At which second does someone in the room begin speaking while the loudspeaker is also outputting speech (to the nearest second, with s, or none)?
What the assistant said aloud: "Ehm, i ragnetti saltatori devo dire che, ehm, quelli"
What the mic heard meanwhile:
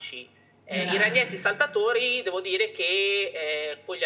1 s